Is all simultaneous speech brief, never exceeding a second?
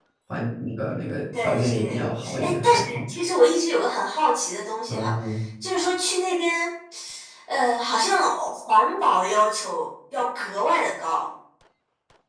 No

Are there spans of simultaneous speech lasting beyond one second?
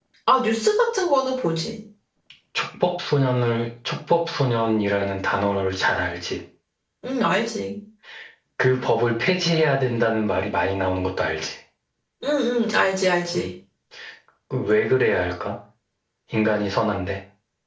No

